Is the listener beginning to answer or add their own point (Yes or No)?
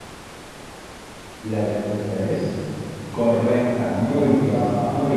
Yes